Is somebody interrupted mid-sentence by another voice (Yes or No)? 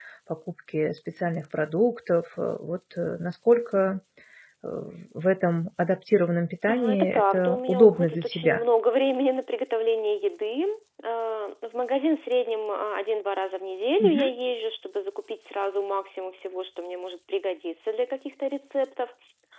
Yes